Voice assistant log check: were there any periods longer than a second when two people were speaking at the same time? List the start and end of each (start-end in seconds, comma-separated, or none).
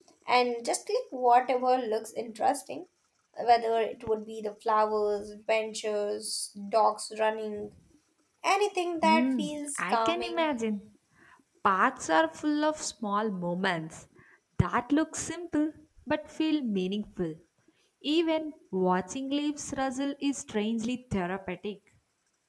9.0-10.4